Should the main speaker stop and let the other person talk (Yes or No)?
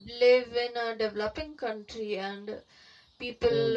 No